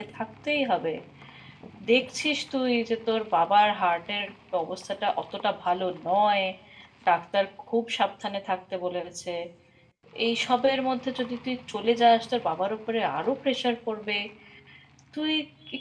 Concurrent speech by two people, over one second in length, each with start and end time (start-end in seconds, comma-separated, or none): none